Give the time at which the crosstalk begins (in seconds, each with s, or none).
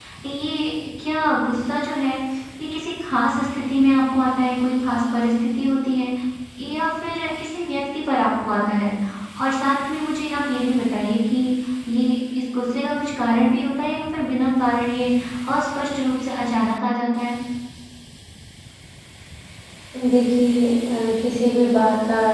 none